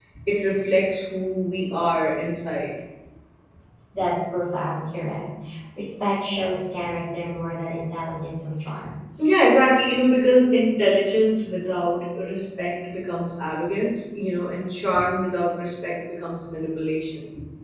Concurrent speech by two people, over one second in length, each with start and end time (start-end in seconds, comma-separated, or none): none